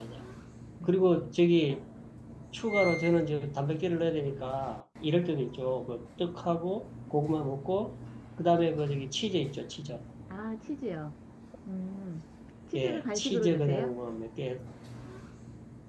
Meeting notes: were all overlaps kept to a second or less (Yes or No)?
No